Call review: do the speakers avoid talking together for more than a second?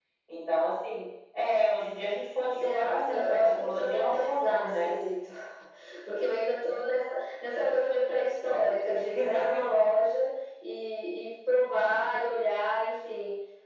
No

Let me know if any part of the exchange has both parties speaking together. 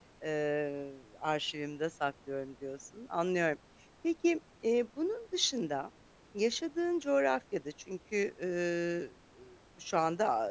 No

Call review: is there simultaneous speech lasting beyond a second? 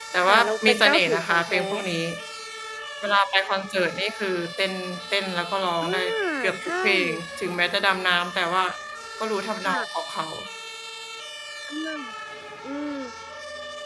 Yes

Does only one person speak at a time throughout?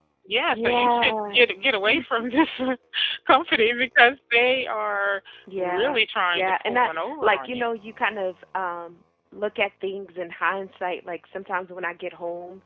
No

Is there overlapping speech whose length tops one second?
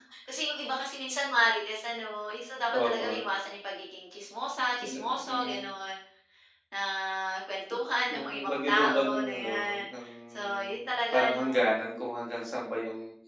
Yes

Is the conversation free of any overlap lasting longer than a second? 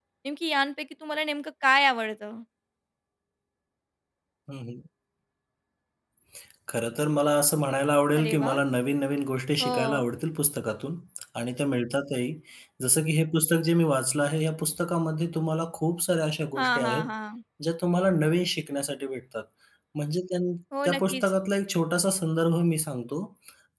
Yes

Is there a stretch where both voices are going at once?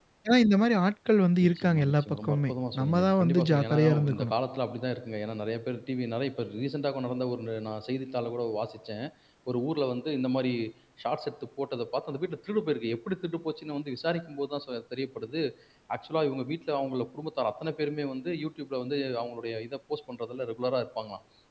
Yes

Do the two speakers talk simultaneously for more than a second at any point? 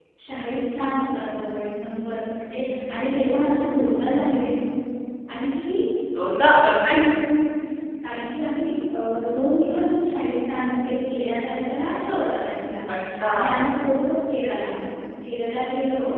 No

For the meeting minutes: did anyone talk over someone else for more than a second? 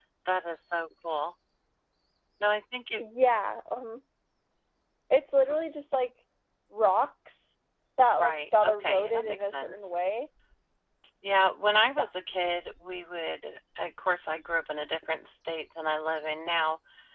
Yes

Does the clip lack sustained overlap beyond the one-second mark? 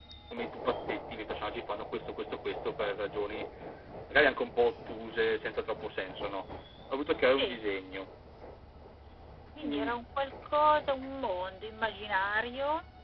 Yes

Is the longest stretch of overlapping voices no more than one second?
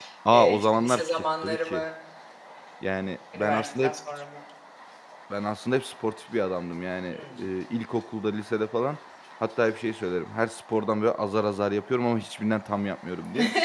No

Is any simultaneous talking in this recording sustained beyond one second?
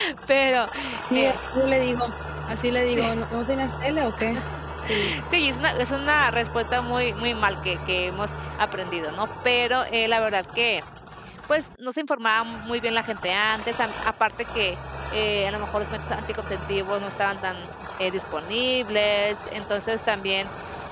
No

